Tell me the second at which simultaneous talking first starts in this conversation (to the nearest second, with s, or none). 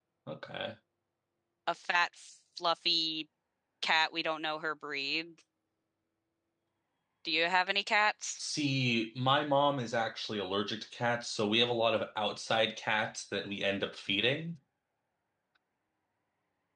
none